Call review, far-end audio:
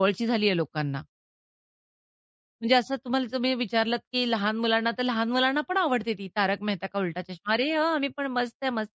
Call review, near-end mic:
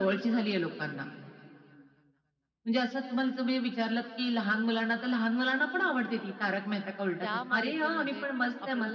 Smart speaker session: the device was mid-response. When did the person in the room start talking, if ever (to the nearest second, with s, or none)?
7 s